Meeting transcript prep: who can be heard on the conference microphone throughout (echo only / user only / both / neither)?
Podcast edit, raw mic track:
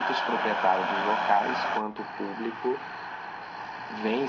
echo only